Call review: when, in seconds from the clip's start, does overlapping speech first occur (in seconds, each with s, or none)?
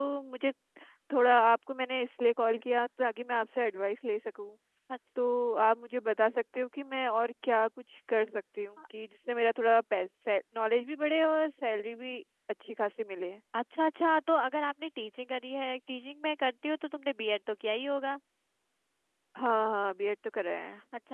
none